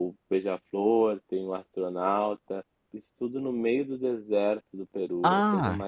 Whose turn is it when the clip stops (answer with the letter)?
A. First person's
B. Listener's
B